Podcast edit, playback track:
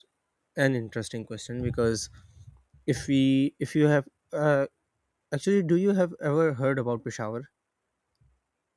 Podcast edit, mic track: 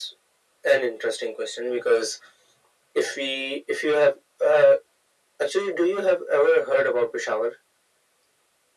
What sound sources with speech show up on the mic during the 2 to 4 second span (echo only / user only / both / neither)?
echo only